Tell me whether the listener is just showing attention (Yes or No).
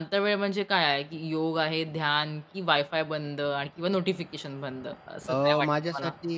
No